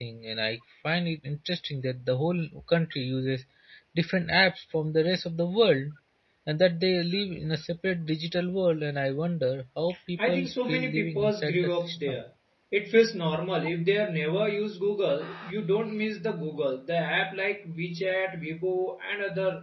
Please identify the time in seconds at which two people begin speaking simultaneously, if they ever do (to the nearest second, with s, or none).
10 s